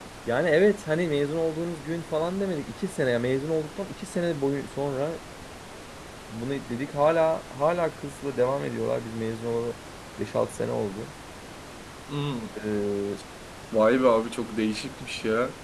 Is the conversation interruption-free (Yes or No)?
Yes